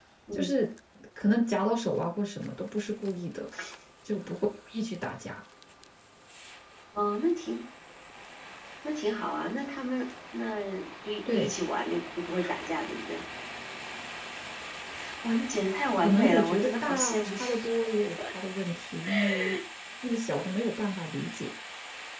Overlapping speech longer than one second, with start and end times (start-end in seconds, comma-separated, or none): 16.0-17.4